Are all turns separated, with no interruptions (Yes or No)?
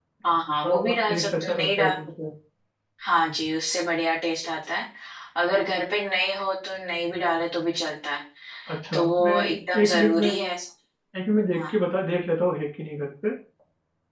No